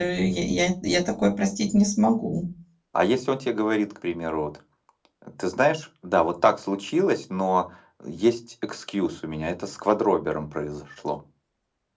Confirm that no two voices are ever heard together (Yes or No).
Yes